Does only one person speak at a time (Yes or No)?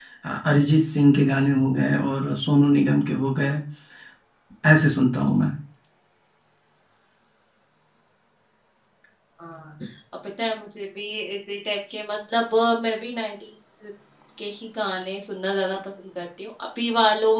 Yes